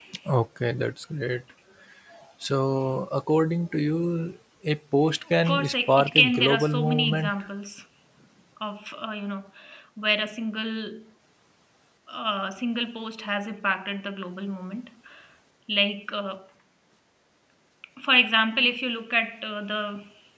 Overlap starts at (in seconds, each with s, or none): 5.3 s